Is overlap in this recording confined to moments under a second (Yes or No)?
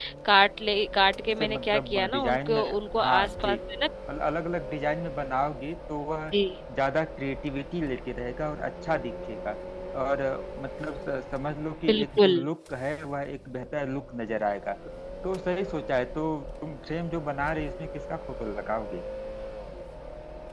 No